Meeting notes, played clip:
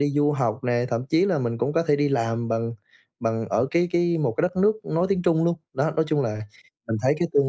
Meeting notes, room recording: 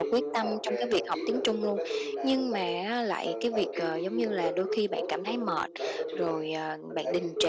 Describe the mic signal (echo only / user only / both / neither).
both